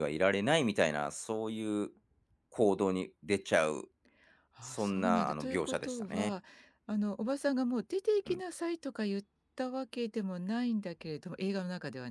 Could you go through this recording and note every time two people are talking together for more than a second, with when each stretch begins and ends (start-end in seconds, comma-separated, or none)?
4.6-6.3